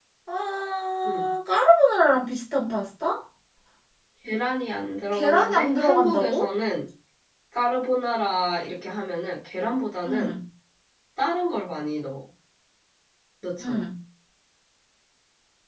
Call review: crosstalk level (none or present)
present